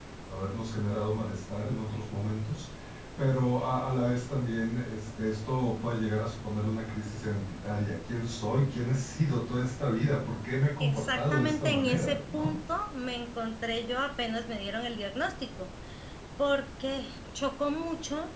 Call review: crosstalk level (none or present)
present